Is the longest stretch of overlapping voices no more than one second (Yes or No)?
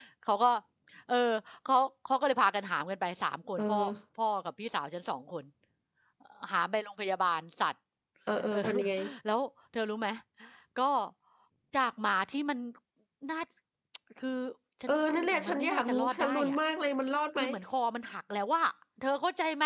No